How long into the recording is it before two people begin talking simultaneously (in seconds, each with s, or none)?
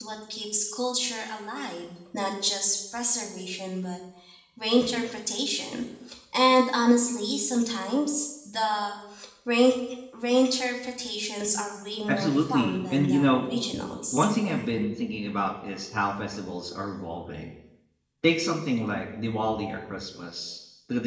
12.1 s